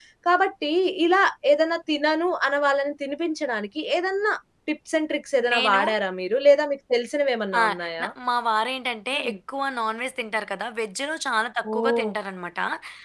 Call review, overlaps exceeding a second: none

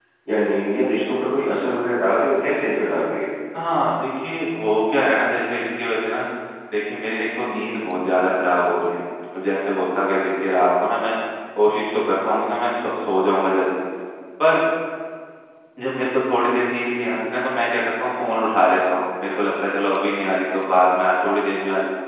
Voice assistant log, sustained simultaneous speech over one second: none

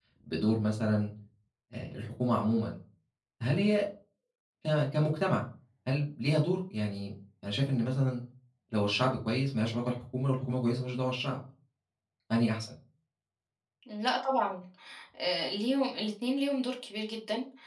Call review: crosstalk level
none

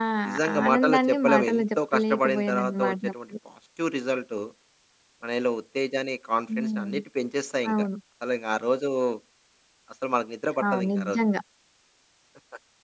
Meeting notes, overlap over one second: present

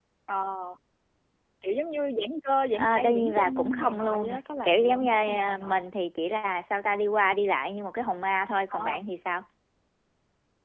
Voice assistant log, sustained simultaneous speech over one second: present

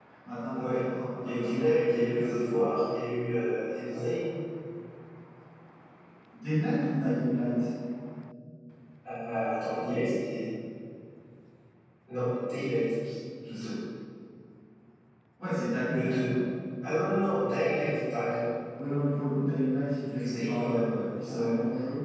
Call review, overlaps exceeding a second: present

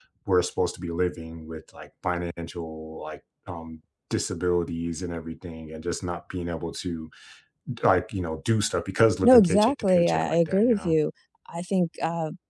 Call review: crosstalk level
present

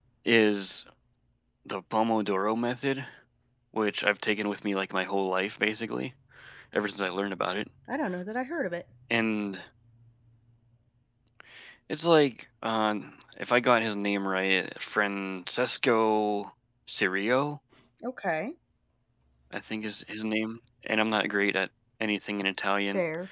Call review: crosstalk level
none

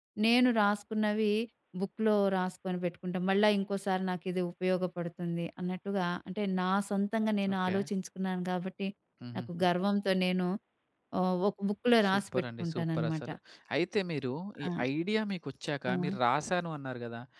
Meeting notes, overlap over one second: present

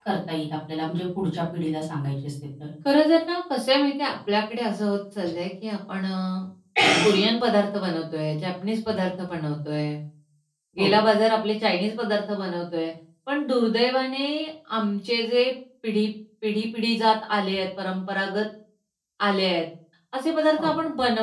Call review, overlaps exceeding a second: none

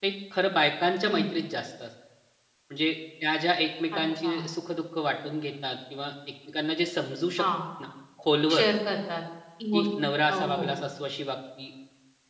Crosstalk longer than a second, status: none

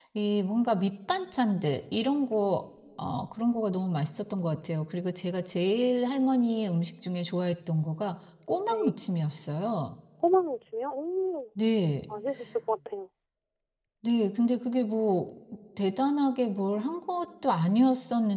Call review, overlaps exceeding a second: none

